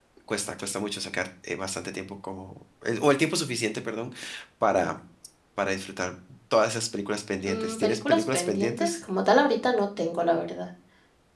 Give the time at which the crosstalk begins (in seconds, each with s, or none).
7.5 s